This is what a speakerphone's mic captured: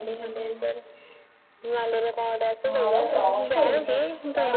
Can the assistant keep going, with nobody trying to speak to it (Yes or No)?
No